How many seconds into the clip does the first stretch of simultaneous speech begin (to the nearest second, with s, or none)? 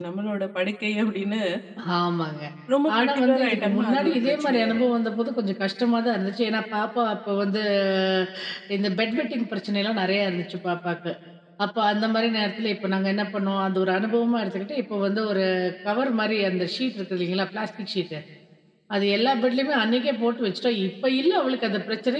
3 s